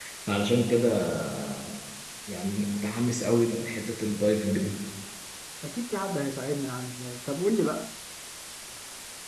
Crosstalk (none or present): none